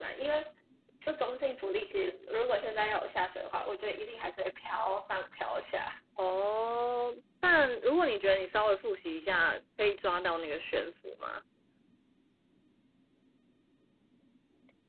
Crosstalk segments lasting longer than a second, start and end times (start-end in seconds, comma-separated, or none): none